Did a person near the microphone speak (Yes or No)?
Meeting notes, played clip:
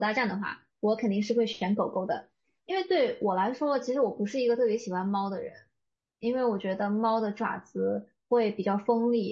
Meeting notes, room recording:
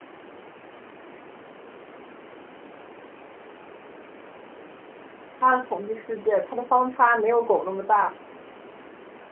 Yes